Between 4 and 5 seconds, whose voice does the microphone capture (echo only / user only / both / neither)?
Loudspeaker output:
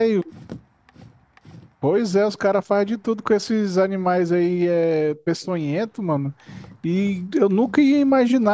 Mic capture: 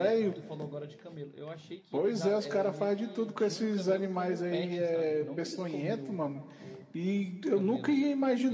both